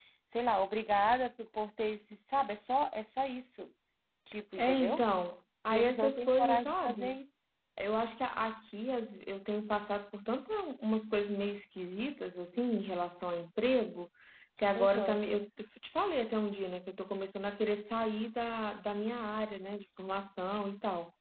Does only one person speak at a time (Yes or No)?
No